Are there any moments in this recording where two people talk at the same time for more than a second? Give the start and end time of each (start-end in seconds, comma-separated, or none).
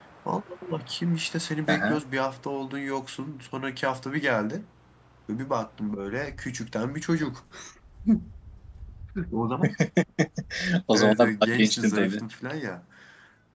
10.9-12.2